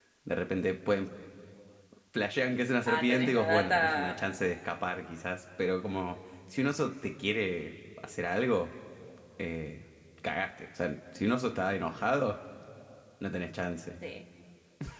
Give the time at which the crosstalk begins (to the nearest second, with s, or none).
3 s